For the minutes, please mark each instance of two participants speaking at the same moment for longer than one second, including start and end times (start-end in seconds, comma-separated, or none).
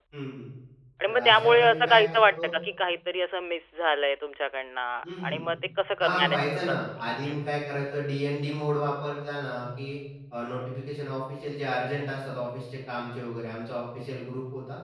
1.1-2.5, 6.0-7.4